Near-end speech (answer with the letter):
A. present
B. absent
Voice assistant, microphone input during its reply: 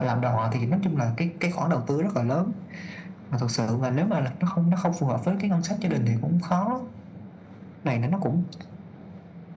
A